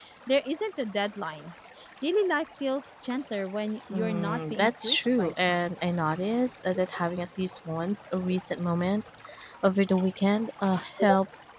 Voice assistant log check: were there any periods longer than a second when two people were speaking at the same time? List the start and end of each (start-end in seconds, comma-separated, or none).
4.0-5.6